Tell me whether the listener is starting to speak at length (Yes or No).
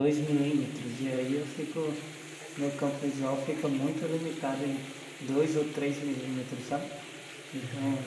Yes